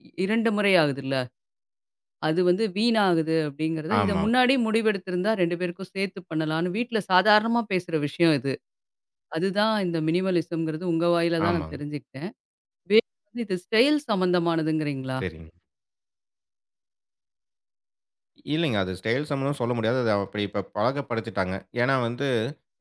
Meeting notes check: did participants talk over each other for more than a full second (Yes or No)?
No